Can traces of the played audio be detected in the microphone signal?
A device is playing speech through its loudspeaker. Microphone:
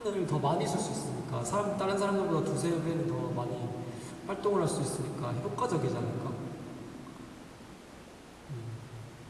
No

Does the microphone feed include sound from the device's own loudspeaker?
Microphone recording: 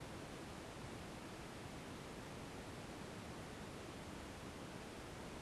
No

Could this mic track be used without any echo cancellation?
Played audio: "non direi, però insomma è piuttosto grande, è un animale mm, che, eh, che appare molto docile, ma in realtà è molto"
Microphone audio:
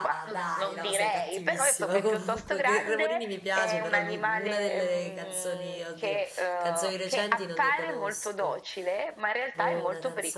No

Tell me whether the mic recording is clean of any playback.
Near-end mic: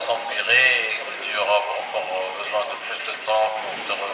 No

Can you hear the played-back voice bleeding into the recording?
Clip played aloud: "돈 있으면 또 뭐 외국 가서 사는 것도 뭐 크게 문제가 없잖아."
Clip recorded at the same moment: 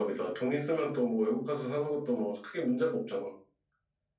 Yes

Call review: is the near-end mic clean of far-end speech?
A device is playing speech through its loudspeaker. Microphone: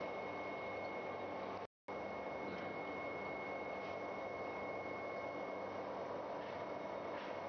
Yes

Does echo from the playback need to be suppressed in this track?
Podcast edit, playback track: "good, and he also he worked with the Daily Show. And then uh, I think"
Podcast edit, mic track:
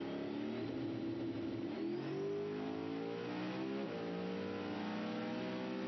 No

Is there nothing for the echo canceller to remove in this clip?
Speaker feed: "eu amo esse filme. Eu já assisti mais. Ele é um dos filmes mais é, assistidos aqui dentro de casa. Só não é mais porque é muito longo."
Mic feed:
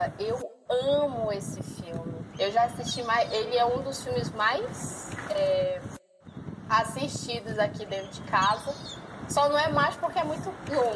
No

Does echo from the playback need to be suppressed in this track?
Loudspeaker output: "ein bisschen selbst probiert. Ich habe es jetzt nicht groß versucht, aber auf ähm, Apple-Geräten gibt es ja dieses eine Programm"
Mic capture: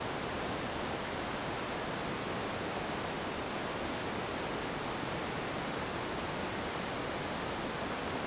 No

